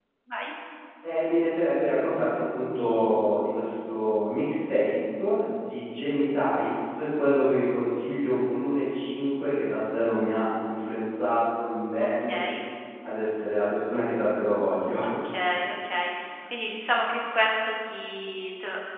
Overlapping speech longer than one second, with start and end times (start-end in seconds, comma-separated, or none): none